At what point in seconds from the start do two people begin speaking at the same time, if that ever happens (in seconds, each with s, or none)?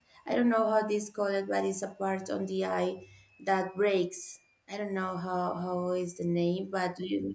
none